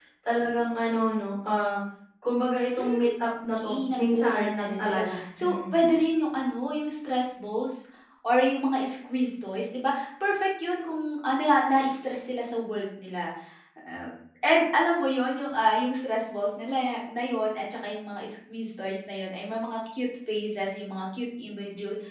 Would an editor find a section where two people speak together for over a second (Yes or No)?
Yes